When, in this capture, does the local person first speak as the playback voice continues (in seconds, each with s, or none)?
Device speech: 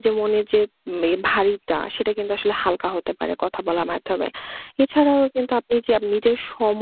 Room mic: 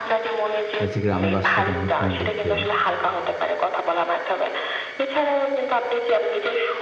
0.8 s